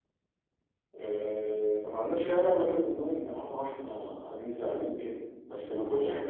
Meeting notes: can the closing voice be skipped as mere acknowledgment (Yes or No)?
Yes